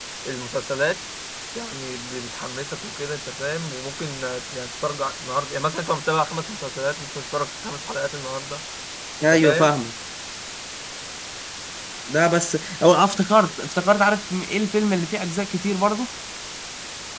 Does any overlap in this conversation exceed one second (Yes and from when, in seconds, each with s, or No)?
No